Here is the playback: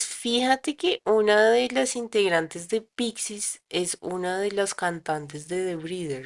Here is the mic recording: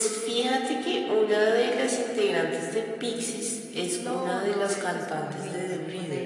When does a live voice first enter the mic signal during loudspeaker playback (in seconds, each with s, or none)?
4.0 s